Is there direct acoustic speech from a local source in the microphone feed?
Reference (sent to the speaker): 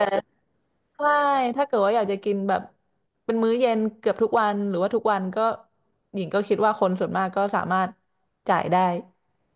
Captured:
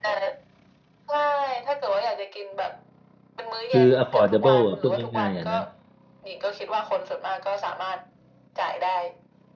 Yes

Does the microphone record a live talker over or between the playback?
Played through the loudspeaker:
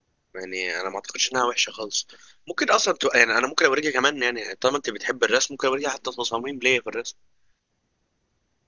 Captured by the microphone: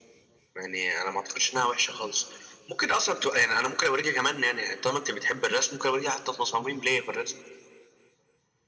No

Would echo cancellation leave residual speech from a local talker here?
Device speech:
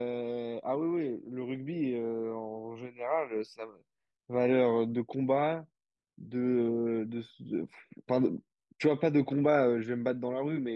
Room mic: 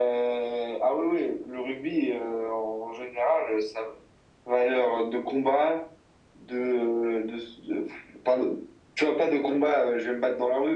No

